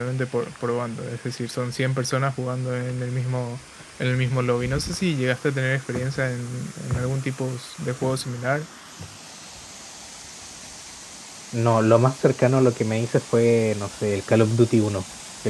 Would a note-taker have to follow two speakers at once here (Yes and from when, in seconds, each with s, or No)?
No